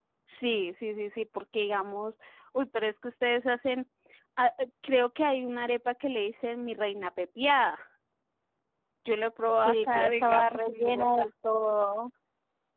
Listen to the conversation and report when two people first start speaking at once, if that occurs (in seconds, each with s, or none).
9.6 s